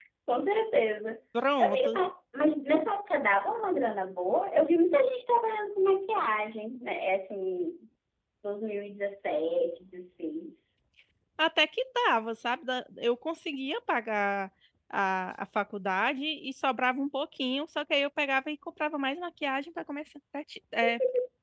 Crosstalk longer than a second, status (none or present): none